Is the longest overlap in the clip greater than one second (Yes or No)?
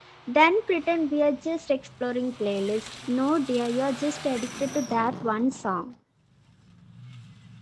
No